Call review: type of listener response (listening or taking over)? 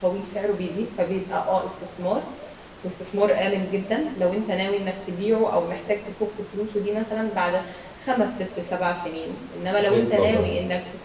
listening